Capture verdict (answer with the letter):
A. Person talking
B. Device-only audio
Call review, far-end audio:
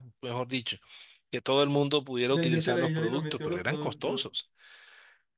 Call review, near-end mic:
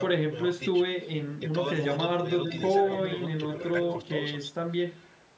A